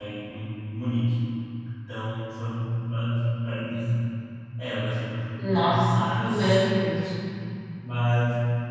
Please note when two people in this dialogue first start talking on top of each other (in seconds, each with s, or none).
5.4 s